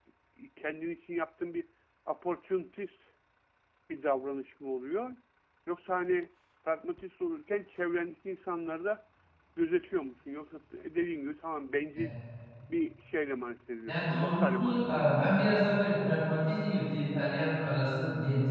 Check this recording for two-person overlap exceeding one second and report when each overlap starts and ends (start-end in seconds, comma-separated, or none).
13.9-15.1